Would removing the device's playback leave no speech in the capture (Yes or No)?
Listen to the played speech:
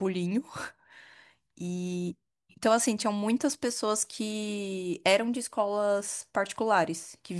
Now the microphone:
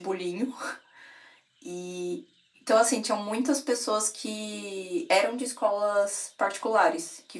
Yes